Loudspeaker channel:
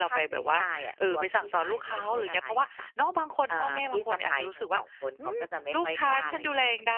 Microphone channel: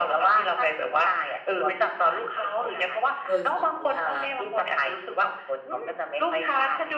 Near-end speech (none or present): present